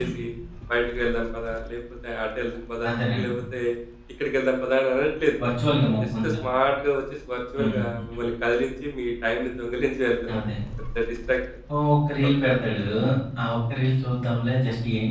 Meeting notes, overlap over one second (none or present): none